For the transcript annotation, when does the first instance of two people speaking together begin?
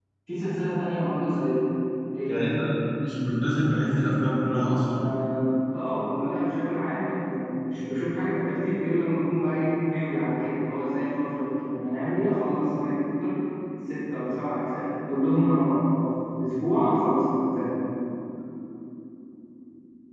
none

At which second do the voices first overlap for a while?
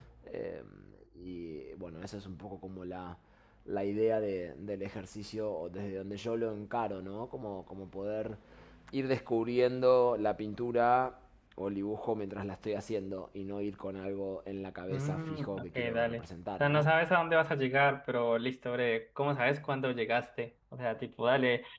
14.9 s

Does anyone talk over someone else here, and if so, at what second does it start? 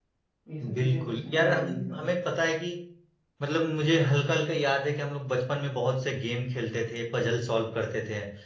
0.7 s

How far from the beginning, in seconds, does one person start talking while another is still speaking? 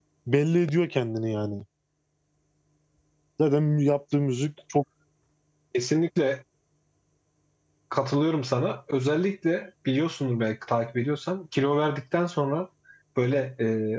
none

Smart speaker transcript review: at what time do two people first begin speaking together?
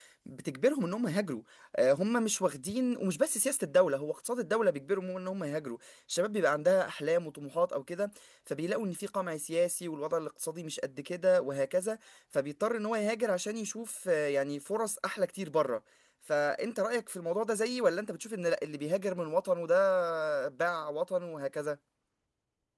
none

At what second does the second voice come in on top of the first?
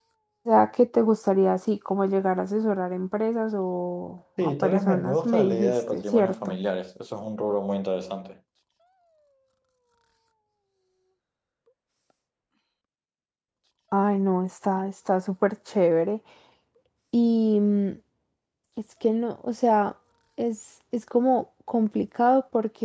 4.4 s

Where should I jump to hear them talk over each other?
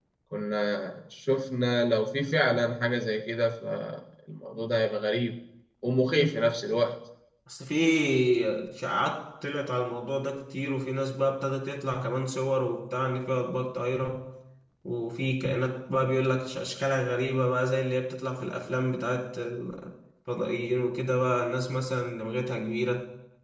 none

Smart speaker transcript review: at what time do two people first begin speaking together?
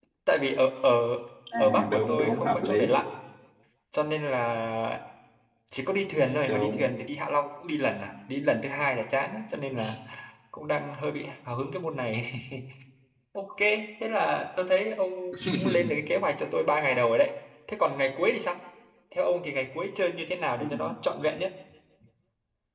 1.6 s

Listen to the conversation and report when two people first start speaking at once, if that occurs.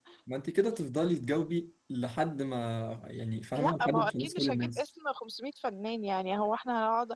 3.5 s

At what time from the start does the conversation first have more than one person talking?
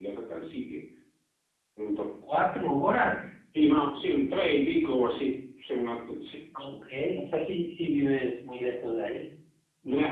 none

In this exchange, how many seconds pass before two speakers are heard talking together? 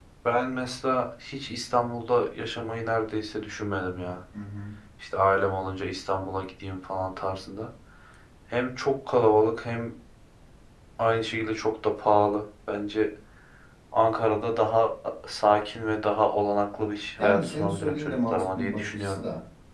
17.2 s

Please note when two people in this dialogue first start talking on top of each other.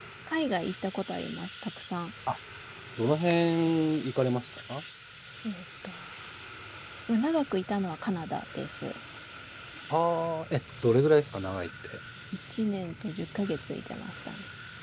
none

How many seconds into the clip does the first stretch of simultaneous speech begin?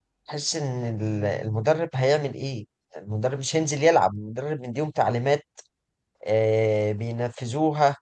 none

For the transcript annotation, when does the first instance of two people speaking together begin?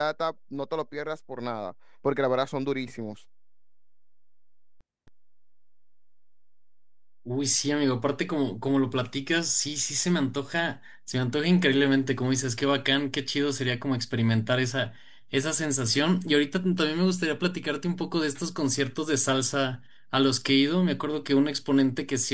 none

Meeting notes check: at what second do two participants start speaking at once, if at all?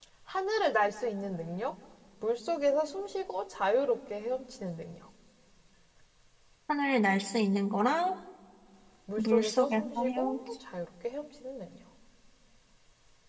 9.2 s

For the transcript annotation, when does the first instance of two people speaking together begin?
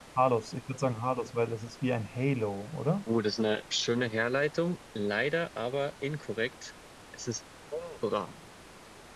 none

